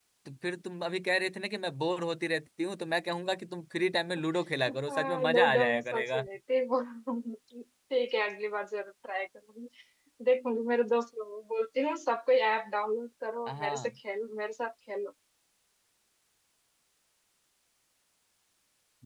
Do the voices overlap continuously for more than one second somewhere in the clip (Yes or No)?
Yes